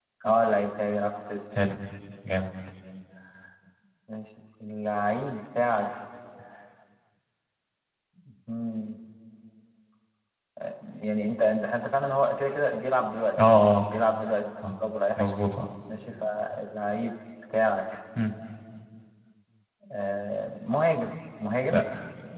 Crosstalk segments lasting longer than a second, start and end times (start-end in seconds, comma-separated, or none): none